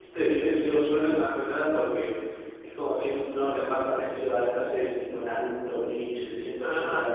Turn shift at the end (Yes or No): Yes